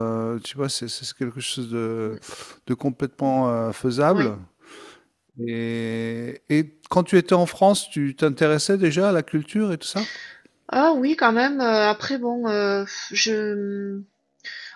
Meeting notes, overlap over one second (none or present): none